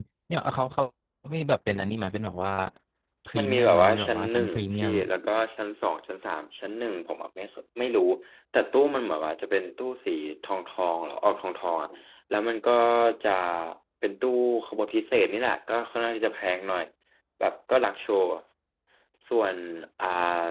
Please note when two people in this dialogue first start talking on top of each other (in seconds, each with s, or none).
3.4 s